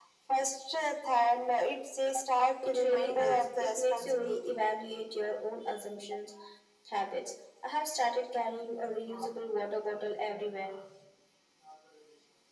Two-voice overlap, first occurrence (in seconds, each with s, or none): 2.6 s